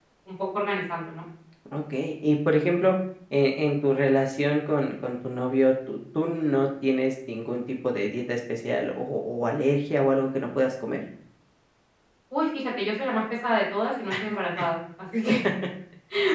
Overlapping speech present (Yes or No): No